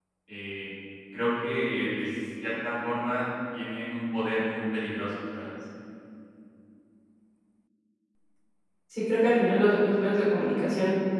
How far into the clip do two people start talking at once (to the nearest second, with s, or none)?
none